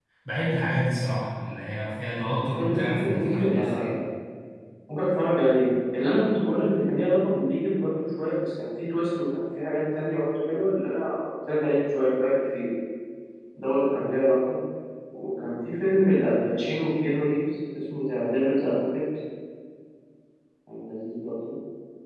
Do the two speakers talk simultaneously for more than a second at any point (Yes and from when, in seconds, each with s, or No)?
Yes, from 2.6 s